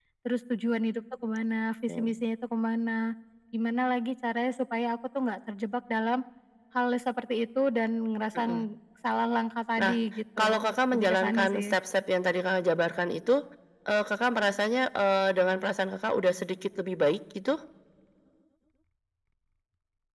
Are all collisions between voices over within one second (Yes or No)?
No